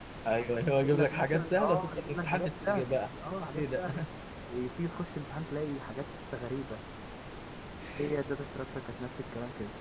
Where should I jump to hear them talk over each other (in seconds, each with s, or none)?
0.8 s